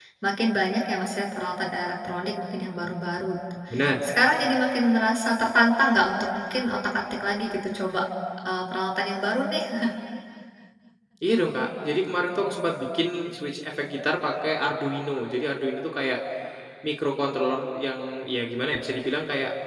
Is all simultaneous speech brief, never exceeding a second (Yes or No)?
Yes